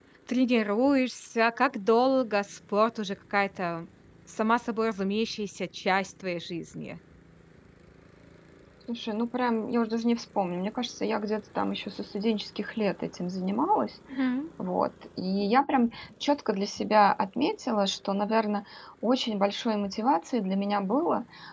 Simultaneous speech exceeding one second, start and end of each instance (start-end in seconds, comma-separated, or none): none